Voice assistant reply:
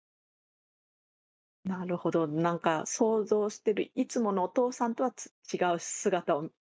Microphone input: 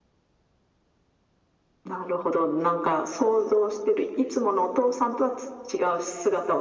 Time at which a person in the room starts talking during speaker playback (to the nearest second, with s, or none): none